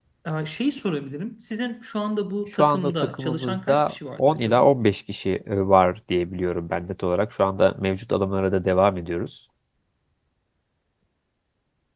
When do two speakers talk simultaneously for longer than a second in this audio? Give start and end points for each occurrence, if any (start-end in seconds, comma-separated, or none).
2.5-4.6